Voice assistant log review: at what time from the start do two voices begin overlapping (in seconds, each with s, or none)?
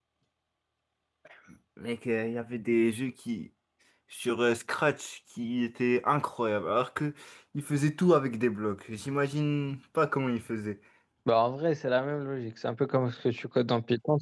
none